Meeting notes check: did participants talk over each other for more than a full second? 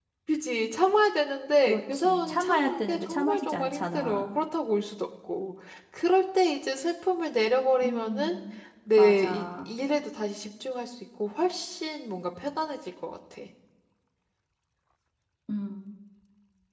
Yes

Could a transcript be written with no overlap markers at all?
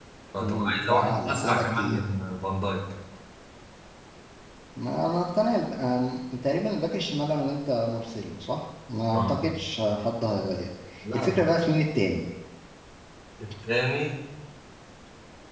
No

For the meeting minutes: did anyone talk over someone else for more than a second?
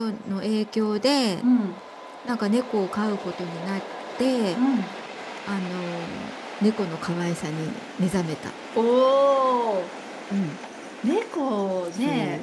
No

